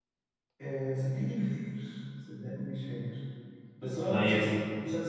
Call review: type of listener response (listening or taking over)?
listening